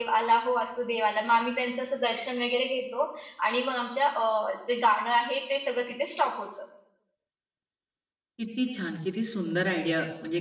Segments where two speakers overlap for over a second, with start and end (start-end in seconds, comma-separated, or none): none